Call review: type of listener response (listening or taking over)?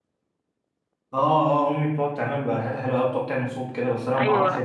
taking over